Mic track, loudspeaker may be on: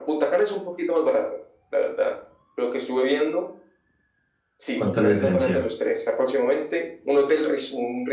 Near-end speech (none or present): present